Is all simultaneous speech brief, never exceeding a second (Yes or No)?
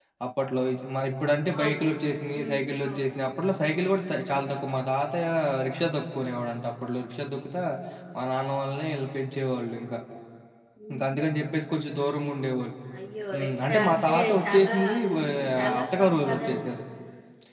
No